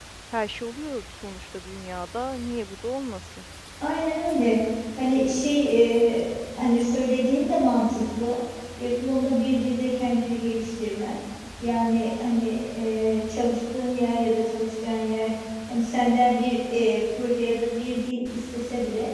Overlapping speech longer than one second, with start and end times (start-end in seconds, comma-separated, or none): none